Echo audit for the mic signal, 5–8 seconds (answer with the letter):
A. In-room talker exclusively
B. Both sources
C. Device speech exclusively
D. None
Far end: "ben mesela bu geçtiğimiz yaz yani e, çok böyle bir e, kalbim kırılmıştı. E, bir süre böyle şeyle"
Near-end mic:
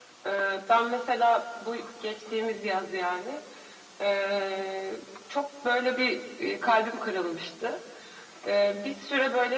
C